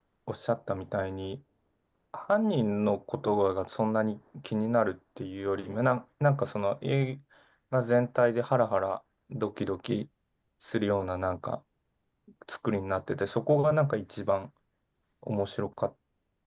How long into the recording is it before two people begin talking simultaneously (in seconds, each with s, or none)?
none